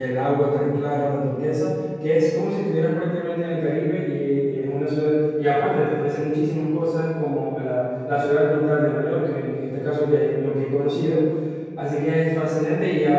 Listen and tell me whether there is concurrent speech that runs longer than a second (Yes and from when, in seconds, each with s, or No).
No